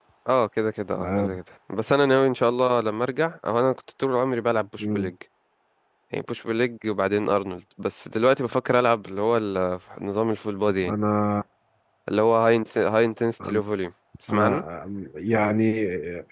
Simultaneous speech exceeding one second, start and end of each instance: none

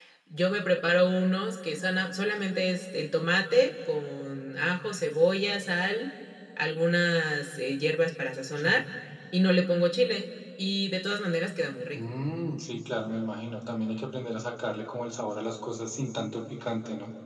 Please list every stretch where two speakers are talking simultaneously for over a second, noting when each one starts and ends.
none

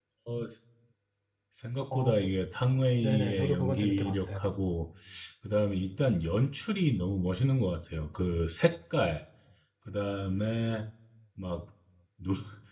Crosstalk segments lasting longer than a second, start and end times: 3.0-4.4

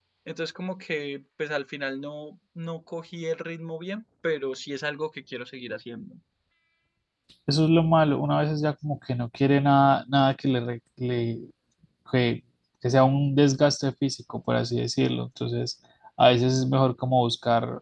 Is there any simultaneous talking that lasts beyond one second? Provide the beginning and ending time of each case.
none

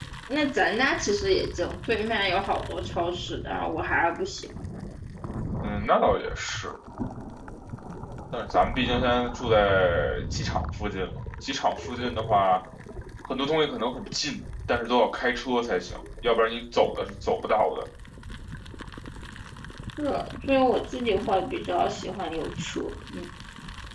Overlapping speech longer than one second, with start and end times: none

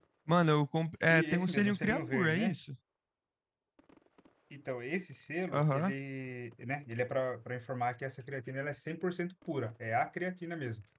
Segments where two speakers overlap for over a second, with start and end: 1.1-2.6

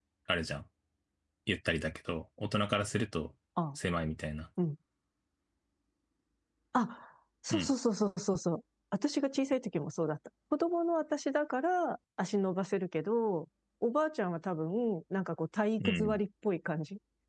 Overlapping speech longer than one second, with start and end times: none

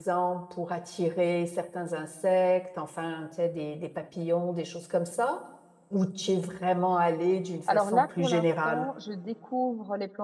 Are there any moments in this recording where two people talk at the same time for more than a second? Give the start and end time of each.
7.7-8.9

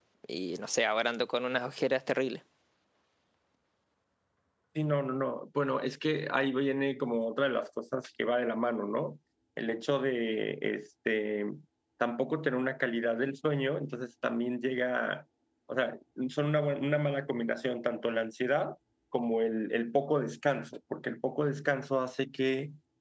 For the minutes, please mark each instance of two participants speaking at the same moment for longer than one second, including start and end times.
none

